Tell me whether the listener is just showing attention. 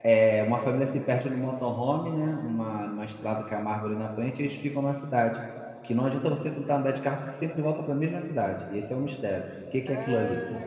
No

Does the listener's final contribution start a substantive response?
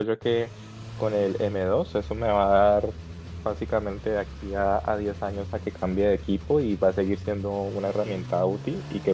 No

